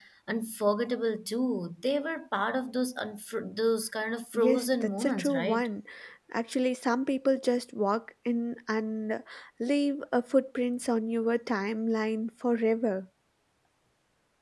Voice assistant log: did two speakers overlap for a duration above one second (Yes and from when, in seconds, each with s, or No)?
Yes, from 4.3 s